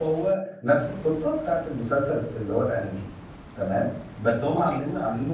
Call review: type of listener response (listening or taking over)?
listening